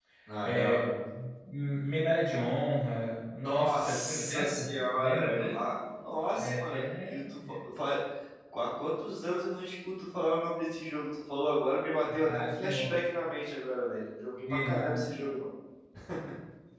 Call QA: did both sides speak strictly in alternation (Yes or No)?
No